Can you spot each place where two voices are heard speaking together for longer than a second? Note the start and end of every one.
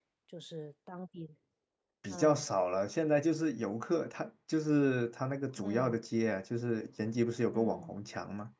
none

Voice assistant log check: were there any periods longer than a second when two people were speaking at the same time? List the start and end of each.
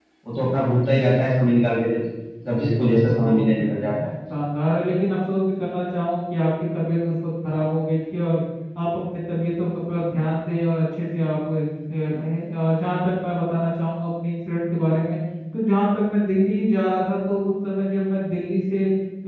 2.5-3.9

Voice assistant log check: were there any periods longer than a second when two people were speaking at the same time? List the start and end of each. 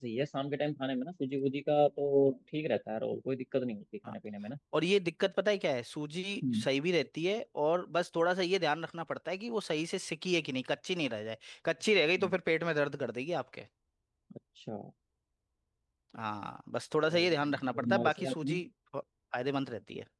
17.1-18.6

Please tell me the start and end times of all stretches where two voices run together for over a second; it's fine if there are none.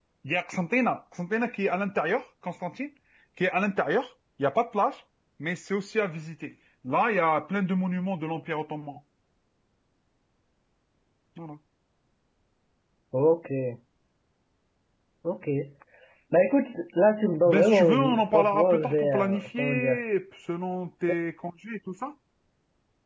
17.4-20.0

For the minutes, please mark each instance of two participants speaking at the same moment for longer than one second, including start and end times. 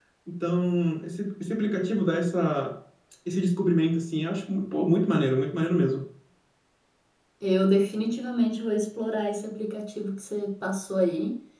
none

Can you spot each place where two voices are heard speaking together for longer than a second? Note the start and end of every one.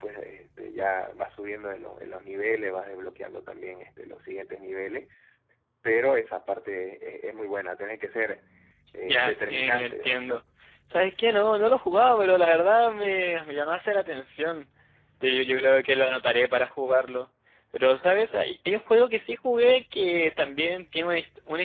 9.0-10.4

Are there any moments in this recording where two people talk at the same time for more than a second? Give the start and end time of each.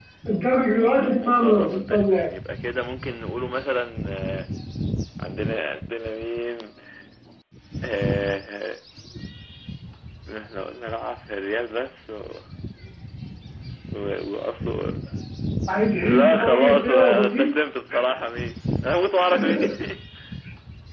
0.7-2.3, 16.1-17.5

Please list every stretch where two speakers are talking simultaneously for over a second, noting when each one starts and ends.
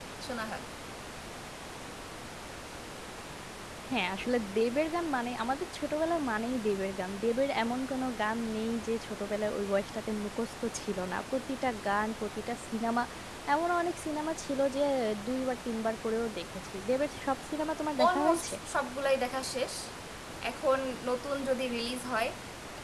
none

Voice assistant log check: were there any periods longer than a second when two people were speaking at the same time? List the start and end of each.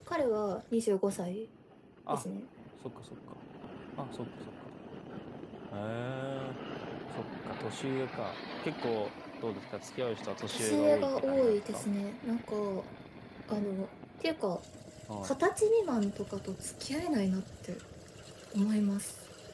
10.5-11.9

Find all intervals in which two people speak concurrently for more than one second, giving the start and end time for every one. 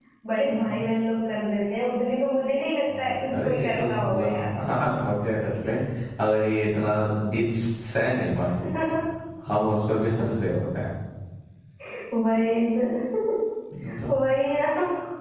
3.0-4.5

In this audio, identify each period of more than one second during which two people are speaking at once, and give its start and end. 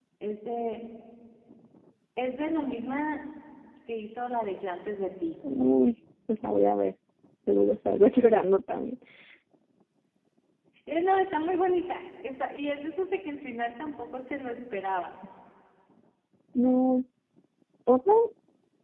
none

